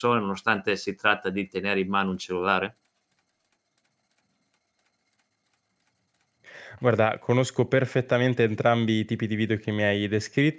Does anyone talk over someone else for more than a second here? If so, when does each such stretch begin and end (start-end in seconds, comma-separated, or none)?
none